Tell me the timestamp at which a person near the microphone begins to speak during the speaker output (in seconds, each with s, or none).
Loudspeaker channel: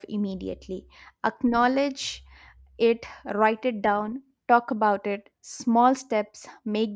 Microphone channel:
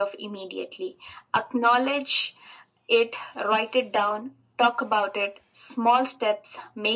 none